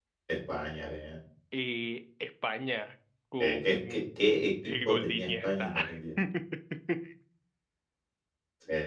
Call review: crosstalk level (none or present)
present